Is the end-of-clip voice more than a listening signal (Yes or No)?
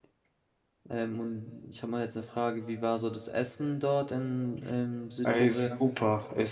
Yes